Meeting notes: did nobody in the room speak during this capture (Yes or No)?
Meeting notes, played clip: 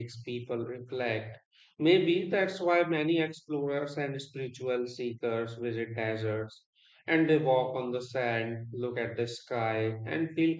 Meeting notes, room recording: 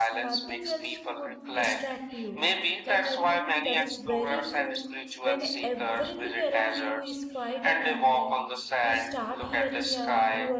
No